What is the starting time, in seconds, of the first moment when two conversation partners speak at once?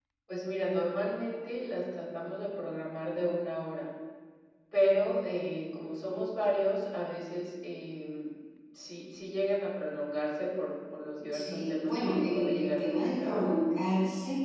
11.3 s

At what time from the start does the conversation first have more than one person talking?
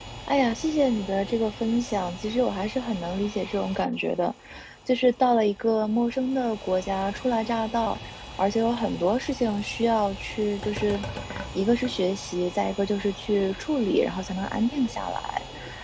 none

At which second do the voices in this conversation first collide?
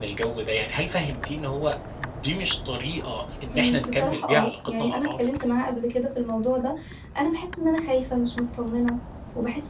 3.5 s

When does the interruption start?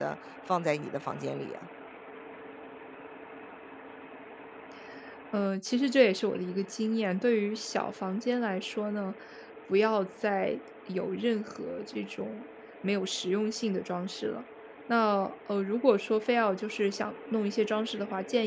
none

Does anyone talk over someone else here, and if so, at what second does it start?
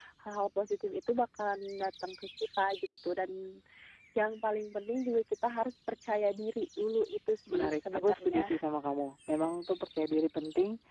7.5 s

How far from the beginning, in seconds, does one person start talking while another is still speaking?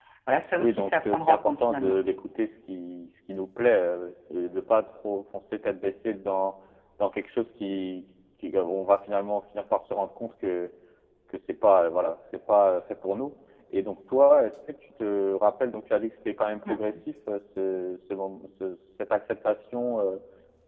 0.6 s

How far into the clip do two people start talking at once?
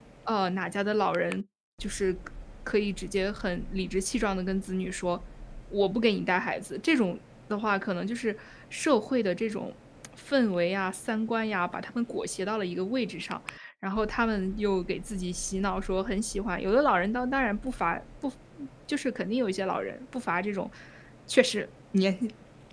none

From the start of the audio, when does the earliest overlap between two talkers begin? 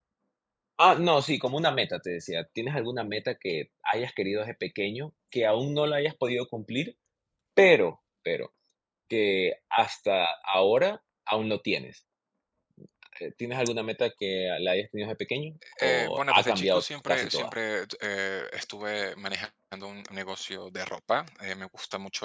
15.6 s

